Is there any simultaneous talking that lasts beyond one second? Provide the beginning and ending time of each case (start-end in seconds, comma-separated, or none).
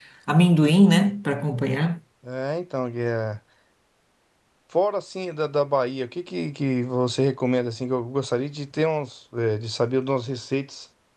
none